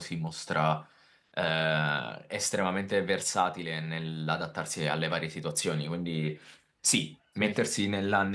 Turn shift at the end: No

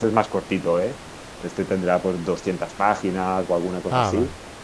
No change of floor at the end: Yes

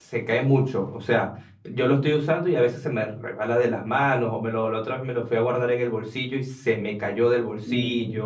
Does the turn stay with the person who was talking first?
No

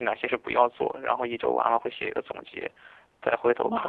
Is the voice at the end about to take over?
Yes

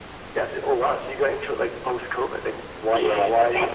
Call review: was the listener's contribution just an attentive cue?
No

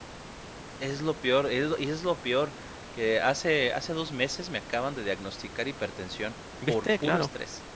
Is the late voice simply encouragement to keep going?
No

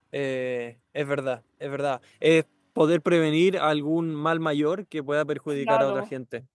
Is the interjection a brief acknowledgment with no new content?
No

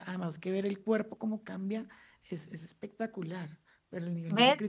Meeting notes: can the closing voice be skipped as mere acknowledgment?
No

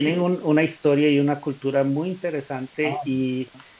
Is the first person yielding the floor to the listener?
No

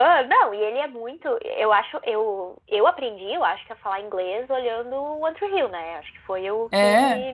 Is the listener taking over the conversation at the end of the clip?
No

